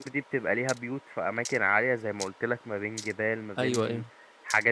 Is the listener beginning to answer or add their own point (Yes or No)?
No